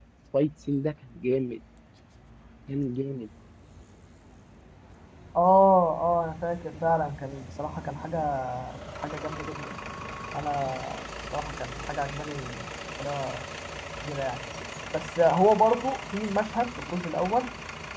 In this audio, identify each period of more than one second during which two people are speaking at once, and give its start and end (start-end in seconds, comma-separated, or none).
none